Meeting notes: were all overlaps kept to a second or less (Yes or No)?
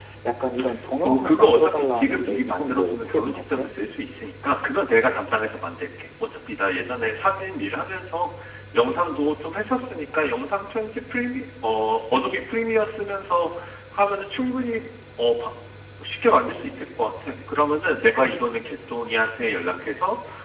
No